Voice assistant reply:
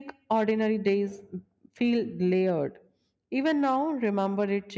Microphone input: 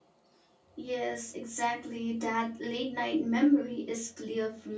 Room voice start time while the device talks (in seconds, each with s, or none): 0.8 s